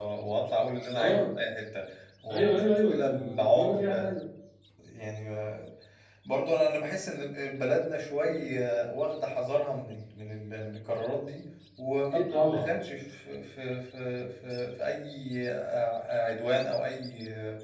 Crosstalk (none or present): present